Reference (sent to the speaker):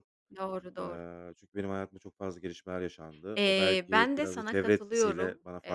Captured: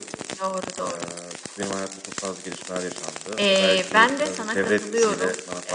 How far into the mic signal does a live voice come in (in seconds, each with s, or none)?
none